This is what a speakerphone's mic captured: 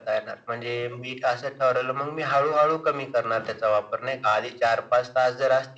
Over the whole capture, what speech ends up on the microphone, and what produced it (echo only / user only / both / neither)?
echo only